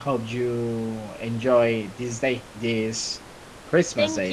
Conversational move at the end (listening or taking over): taking over